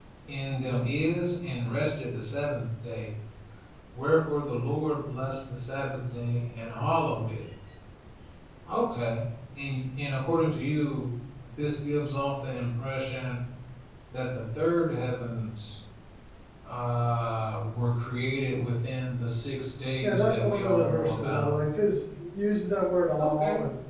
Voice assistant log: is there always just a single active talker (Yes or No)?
No